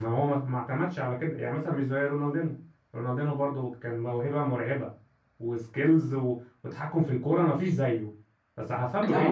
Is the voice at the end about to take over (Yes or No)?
No